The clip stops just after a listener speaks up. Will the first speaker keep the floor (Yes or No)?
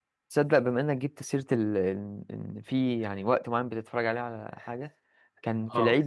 Yes